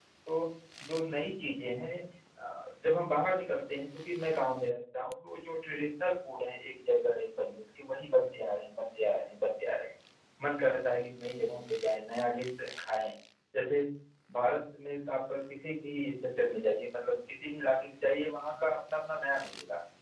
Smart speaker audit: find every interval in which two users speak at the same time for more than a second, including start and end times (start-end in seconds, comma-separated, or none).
none